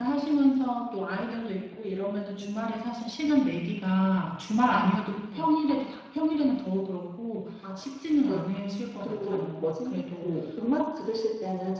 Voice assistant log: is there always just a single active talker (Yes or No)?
No